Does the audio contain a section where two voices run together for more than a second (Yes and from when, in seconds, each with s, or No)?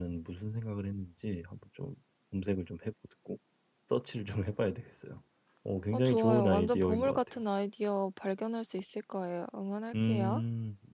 Yes, from 5.9 s